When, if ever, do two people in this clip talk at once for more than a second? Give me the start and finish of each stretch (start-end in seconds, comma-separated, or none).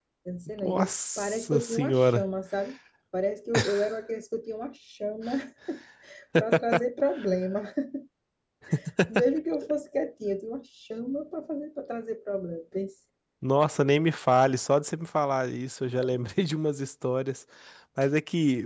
0.6-2.2